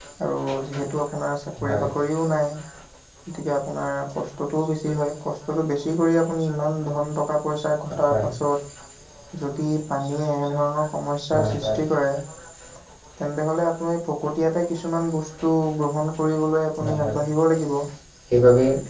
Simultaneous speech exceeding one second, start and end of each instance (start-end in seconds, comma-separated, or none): none